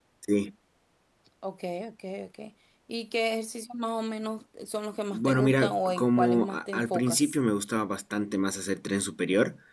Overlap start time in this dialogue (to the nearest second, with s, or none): 5 s